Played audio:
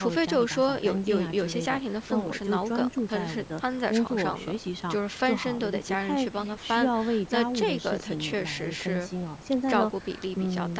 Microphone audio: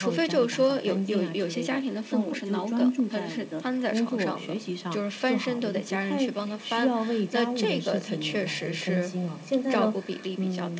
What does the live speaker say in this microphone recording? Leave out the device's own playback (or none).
none